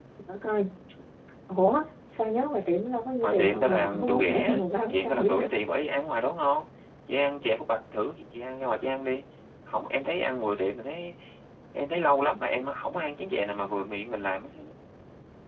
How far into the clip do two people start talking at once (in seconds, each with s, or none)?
3.2 s